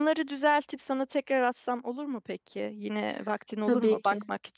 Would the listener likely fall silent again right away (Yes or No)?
Yes